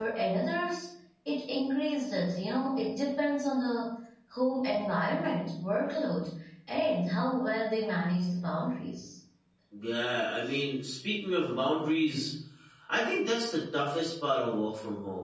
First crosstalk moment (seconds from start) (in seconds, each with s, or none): none